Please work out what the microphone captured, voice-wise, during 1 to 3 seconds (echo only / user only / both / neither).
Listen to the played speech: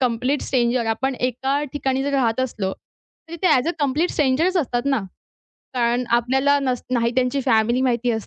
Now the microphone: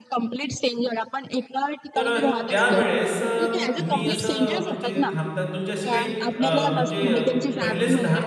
both